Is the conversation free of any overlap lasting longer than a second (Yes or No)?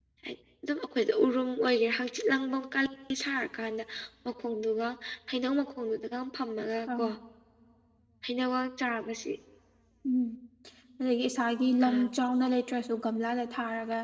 Yes